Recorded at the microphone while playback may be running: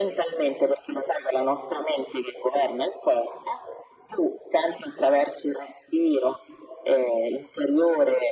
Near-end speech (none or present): none